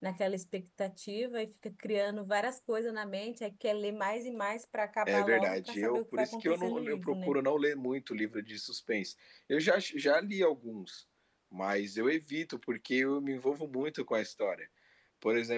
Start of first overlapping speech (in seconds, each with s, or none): 5.1 s